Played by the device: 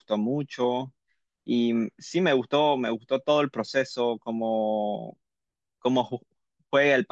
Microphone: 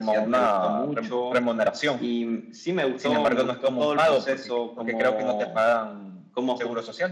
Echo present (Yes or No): Yes